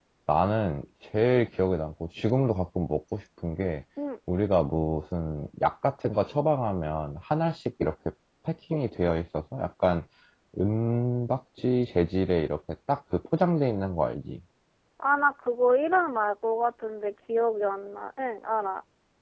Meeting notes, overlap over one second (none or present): none